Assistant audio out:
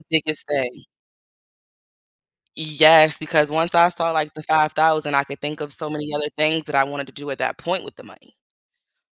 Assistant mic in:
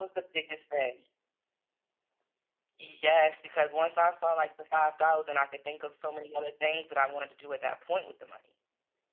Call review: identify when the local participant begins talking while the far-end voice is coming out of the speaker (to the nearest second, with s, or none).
none